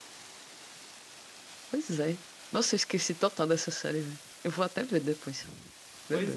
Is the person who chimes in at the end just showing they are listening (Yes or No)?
No